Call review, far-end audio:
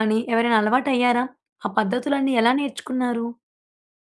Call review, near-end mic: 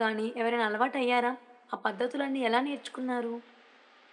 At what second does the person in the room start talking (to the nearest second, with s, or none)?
none